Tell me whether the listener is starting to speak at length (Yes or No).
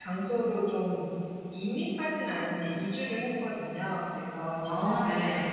No